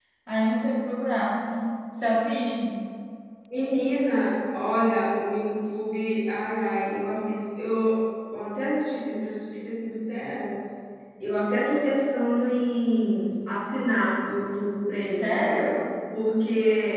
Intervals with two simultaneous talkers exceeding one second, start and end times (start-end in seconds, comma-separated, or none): none